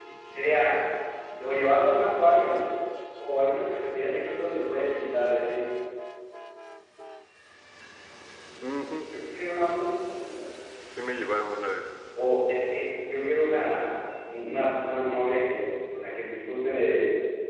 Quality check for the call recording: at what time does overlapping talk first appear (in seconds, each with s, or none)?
none